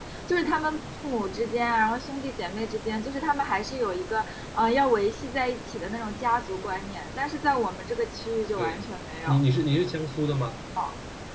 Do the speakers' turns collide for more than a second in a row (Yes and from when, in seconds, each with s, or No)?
No